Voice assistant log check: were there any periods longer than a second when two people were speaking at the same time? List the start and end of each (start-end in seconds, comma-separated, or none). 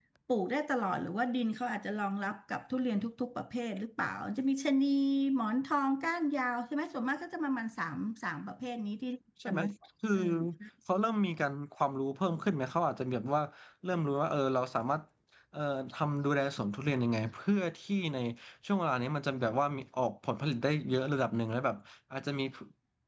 none